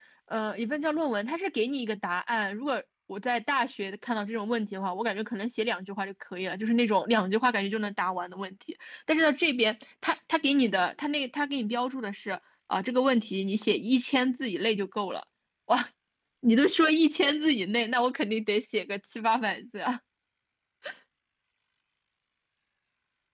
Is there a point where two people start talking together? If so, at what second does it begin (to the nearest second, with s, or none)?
none